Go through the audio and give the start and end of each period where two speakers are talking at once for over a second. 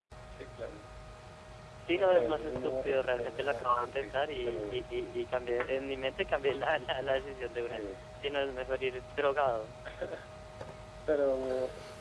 1.9-4.8

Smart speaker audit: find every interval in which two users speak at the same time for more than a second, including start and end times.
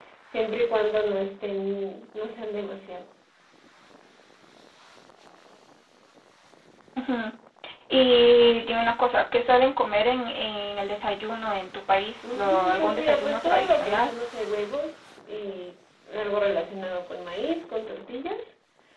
12.2-14.1

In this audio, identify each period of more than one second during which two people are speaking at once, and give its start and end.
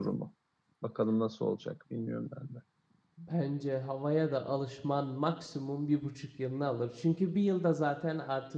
none

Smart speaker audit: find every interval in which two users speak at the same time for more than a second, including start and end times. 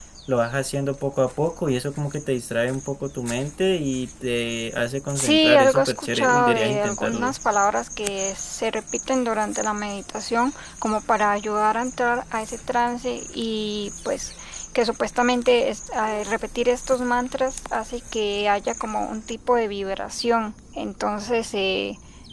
5.2-7.3

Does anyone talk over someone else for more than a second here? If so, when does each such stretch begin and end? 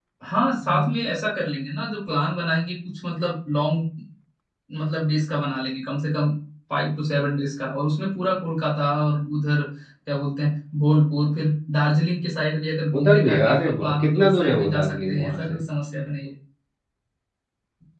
13.0-15.6

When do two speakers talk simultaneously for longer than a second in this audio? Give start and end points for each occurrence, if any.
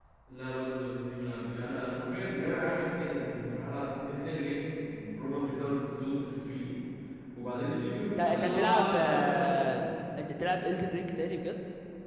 8.2-9.9

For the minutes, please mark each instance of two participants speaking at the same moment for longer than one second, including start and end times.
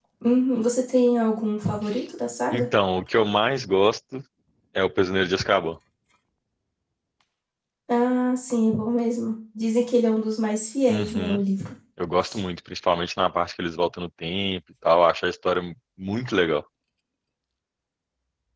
none

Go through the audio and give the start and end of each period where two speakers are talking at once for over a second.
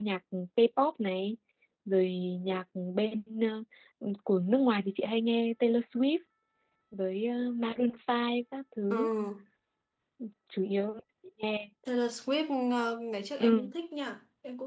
none

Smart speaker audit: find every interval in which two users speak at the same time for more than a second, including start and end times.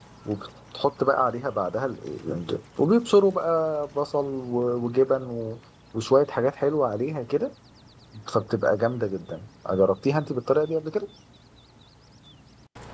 none

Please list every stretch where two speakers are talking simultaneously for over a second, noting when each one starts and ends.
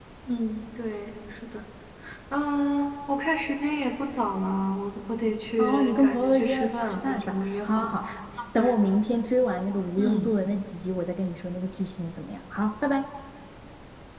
5.6-8.0

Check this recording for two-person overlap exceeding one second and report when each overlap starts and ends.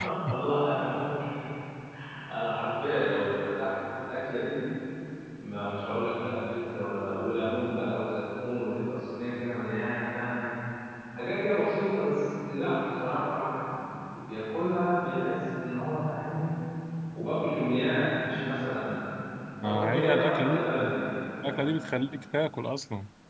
19.6-20.9

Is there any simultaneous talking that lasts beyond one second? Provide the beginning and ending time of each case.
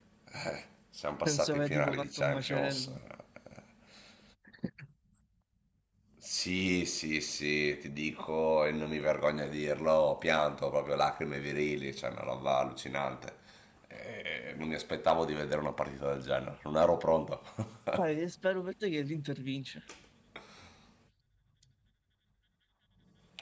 1.2-2.9

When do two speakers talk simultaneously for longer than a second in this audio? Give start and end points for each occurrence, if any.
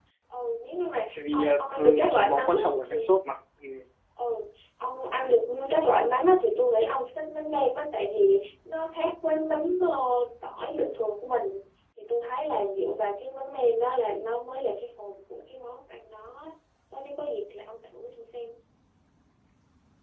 1.3-3.0

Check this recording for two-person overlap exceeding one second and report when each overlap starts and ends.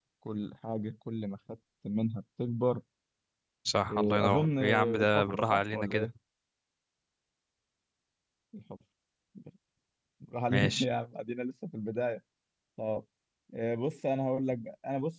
3.9-6.1

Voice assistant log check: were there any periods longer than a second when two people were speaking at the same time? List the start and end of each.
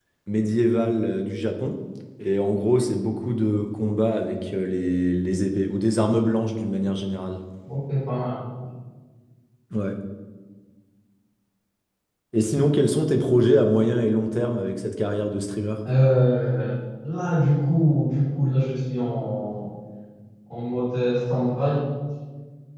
none

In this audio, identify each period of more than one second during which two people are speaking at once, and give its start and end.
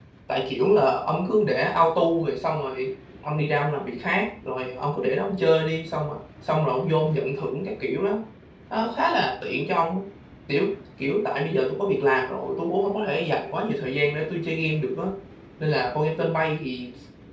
none

